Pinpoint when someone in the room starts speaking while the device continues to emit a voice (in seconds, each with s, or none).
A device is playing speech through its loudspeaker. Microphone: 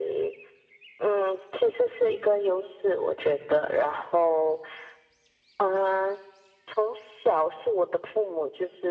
none